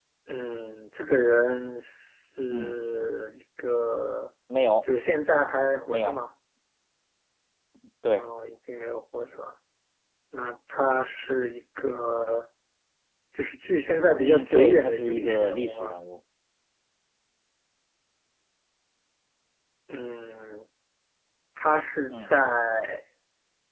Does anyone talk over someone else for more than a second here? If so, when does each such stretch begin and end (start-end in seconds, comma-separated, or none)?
14.2-16.0